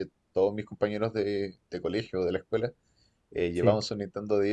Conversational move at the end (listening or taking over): listening